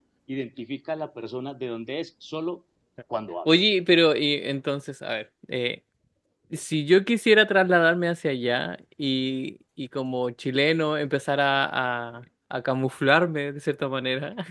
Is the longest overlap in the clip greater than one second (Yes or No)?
No